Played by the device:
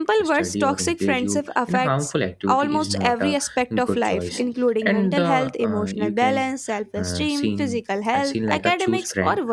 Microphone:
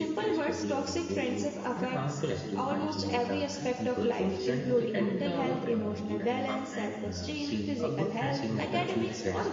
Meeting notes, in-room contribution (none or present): present